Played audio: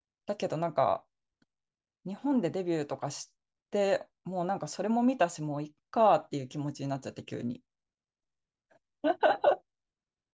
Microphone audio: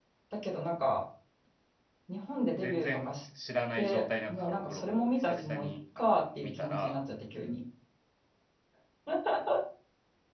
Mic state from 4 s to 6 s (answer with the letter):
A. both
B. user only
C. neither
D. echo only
A